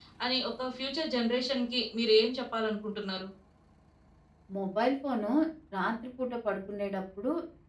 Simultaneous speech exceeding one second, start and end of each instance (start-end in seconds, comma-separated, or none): none